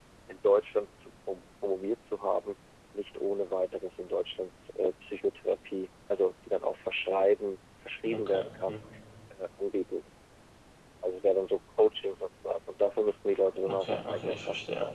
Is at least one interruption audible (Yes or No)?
Yes